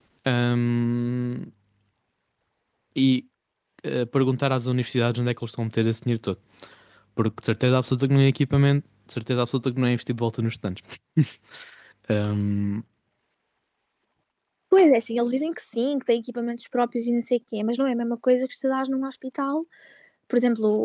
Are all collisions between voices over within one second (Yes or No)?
Yes